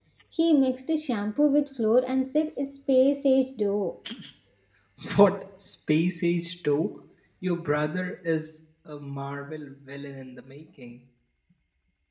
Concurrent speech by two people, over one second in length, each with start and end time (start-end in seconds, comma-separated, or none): none